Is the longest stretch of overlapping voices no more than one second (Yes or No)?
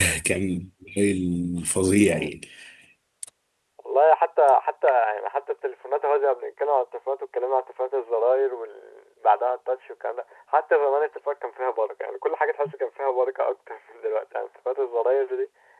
Yes